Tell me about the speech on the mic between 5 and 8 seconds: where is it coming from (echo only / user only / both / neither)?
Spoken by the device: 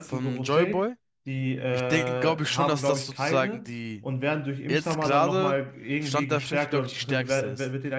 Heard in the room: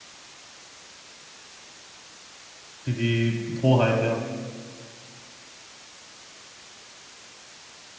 neither